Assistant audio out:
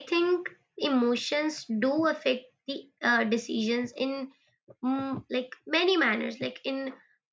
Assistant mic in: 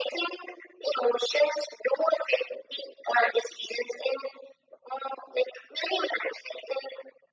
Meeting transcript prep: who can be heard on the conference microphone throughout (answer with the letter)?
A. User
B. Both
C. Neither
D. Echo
D